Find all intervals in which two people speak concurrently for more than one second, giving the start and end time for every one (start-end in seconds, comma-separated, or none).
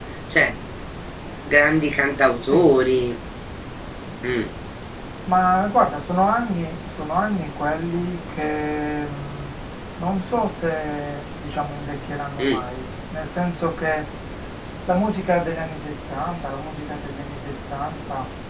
none